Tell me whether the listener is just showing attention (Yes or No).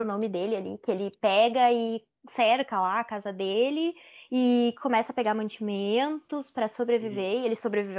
Yes